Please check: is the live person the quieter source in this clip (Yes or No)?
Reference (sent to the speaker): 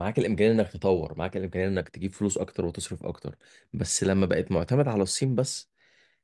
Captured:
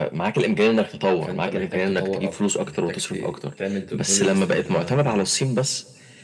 Yes